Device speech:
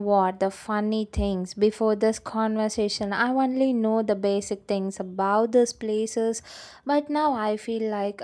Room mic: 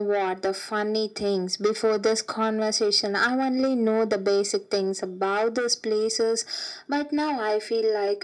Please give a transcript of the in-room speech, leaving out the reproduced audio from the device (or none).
none